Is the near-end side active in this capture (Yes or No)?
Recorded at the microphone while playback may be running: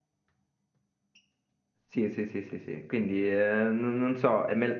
Yes